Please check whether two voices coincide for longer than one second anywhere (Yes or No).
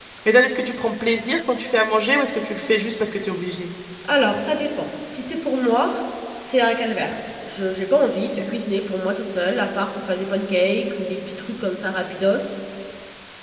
No